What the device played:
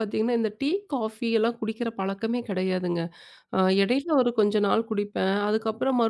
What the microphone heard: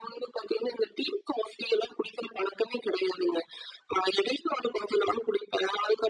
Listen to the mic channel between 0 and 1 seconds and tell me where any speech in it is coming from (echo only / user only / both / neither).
echo only